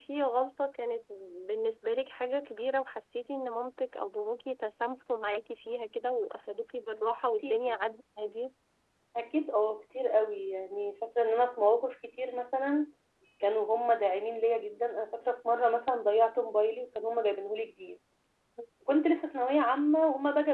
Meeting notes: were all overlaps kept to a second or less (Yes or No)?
Yes